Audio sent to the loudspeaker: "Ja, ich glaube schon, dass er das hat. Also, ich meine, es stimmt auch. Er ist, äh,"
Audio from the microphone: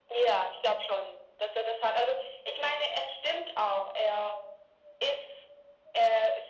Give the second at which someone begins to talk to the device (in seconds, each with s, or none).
none